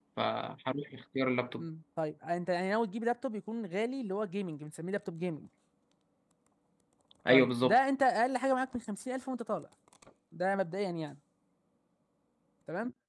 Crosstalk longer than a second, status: none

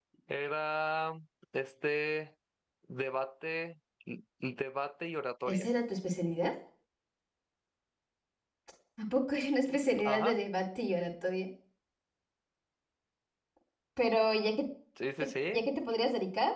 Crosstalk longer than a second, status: none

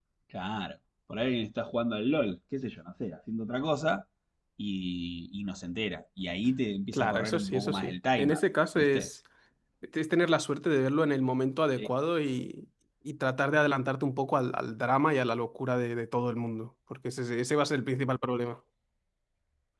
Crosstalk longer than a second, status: present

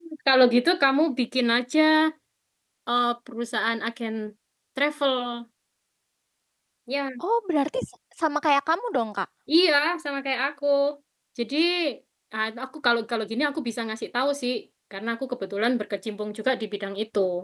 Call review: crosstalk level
none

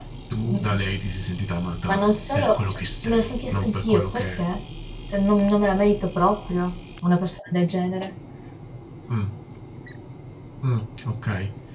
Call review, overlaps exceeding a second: present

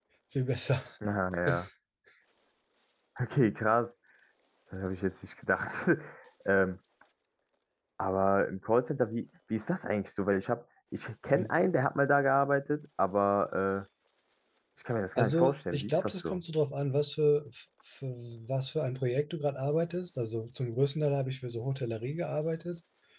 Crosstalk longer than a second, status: present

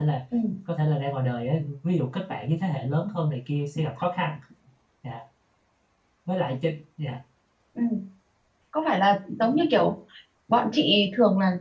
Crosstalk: none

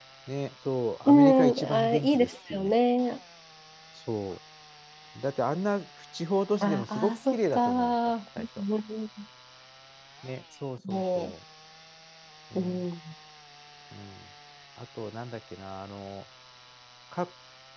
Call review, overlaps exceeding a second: present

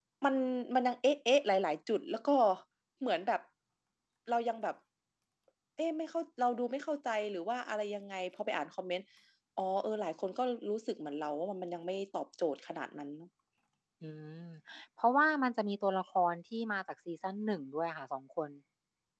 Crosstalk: none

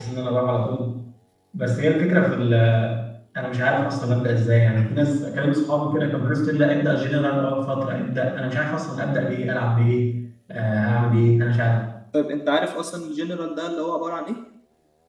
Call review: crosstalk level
none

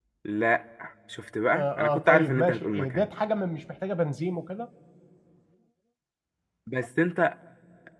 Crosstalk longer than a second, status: present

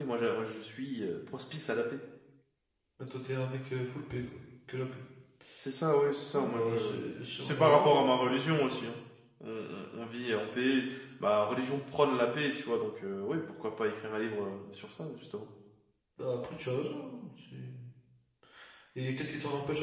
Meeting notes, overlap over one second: present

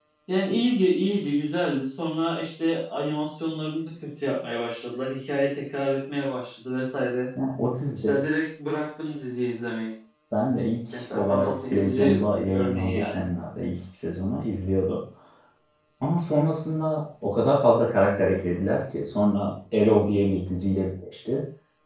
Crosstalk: present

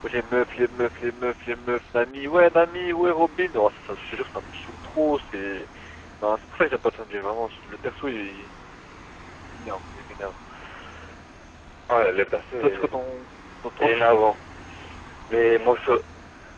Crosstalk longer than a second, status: none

